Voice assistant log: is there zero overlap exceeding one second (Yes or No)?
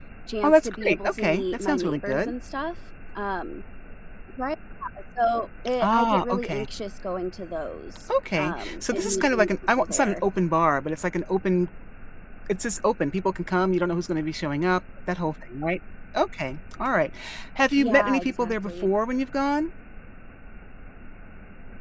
No